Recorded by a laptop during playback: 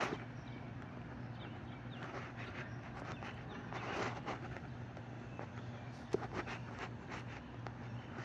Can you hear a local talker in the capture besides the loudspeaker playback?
No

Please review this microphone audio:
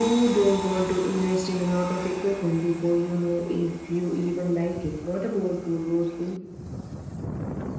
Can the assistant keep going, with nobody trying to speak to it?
Yes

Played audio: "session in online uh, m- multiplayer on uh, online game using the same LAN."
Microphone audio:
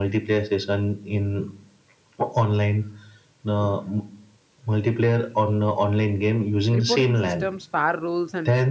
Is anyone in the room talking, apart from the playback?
Yes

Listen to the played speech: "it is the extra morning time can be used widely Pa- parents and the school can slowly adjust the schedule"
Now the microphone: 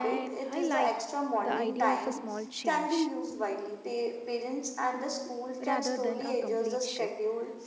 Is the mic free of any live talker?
No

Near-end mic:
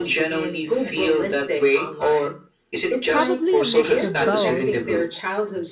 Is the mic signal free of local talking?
No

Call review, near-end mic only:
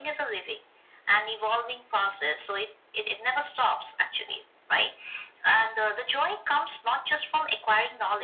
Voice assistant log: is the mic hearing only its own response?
Yes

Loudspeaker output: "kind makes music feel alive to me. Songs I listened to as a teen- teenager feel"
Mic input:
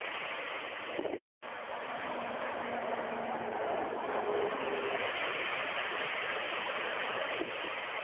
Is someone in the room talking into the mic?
No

